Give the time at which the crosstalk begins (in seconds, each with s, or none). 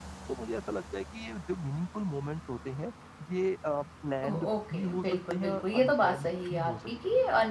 4.2 s